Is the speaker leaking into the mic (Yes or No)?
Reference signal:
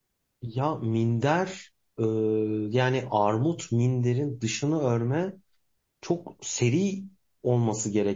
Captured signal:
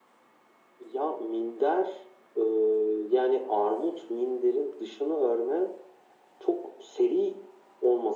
Yes